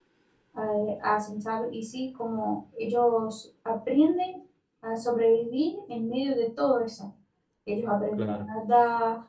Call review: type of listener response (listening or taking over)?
listening